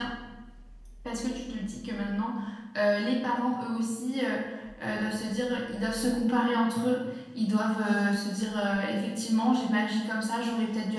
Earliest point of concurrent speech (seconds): none

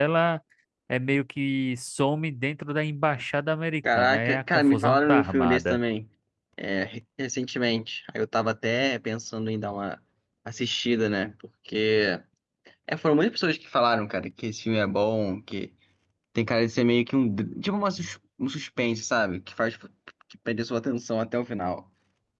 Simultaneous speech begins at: 3.8 s

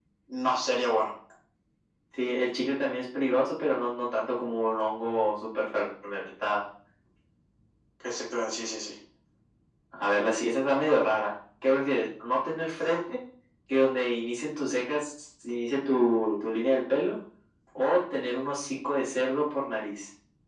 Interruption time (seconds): none

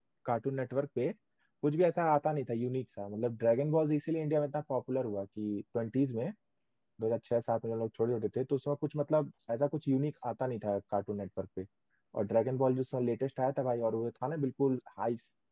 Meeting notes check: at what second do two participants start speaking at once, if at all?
none

